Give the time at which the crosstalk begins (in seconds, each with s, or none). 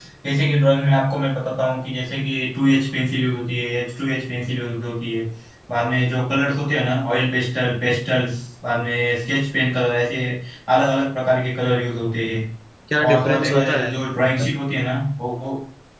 13.0 s